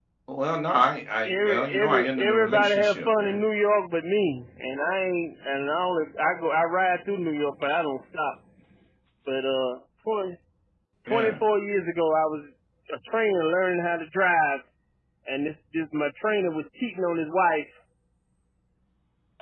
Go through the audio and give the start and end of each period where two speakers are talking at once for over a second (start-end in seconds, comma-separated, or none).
1.2-3.4